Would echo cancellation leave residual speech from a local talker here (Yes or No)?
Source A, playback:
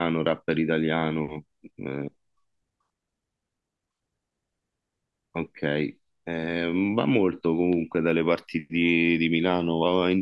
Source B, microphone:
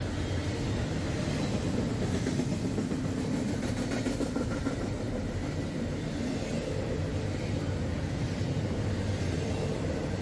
No